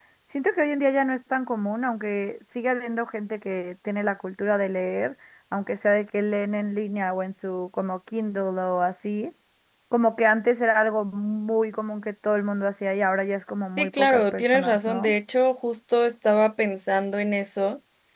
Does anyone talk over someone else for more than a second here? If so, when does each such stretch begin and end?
13.8-15.1

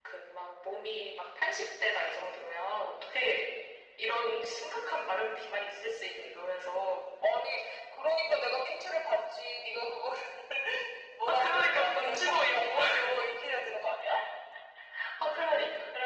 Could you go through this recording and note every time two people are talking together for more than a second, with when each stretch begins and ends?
11.3-12.8

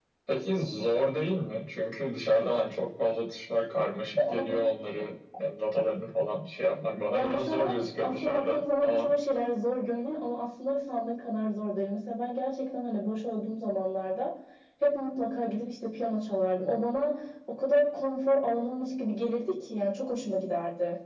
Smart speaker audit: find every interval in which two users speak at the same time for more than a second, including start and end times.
7.1-9.1

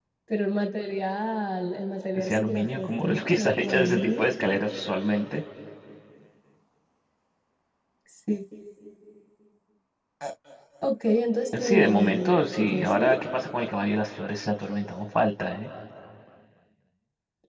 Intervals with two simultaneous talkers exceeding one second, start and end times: 2.1-4.3, 11.6-13.2

